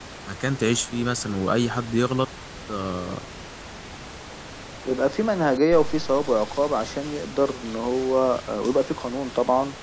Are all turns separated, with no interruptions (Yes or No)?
Yes